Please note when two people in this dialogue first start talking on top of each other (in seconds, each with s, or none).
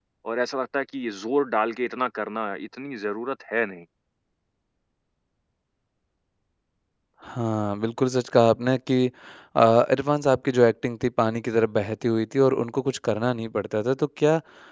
none